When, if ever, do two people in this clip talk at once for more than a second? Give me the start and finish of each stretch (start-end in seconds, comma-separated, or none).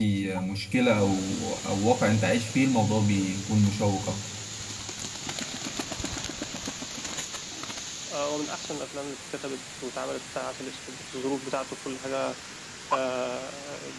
none